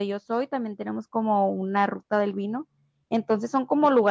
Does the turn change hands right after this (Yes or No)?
No